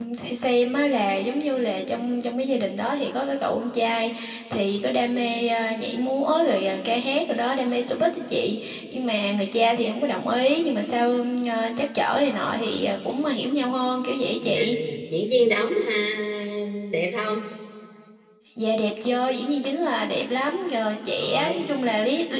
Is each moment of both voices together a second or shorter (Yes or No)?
Yes